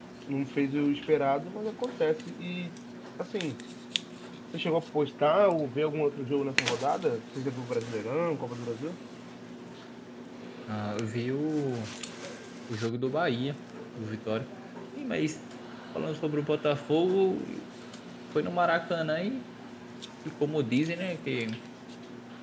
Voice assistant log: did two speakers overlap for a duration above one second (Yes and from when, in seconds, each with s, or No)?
No